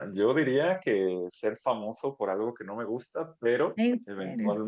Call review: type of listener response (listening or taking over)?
listening